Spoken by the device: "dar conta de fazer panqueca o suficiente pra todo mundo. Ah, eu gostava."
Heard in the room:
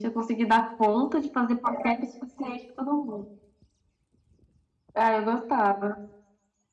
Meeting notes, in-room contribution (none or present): none